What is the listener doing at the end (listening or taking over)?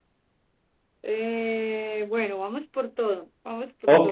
taking over